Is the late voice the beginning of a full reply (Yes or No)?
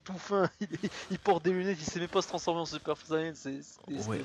Yes